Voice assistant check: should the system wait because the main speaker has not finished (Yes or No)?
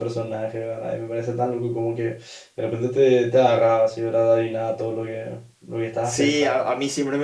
No